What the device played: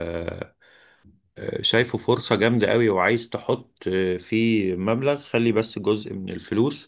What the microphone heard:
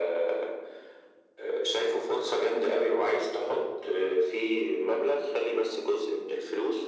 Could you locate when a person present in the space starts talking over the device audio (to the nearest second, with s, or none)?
none